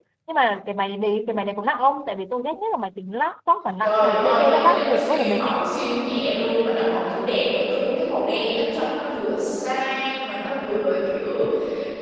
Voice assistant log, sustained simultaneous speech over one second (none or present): present